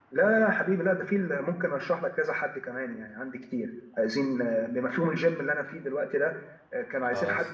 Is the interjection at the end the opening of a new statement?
No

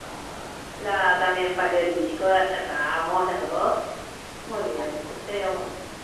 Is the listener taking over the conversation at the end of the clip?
No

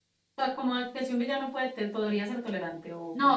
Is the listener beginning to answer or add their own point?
Yes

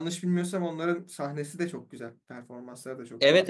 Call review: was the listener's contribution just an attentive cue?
No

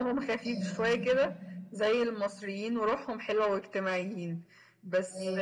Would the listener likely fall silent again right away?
Yes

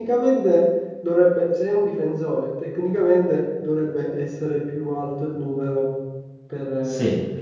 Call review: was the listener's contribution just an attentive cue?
No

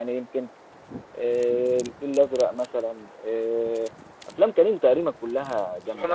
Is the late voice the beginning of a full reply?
Yes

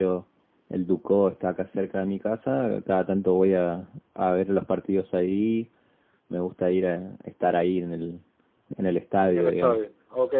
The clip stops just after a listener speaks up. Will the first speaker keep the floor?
No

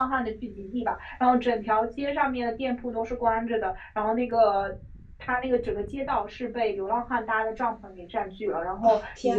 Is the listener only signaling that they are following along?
Yes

